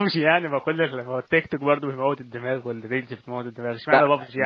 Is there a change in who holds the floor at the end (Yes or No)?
Yes